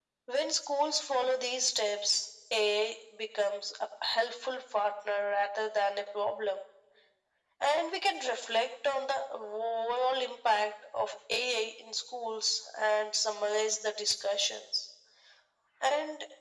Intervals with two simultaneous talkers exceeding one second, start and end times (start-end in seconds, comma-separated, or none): none